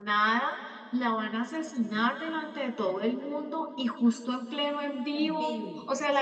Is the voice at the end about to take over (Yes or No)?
No